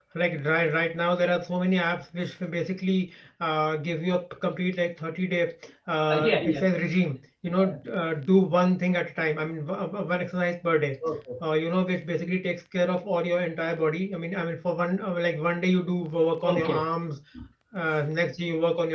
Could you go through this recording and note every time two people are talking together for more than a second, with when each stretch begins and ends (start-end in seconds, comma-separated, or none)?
none